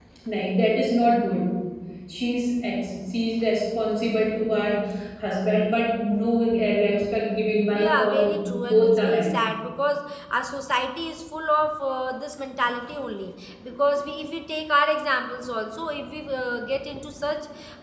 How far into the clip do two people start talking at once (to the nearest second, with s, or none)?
8 s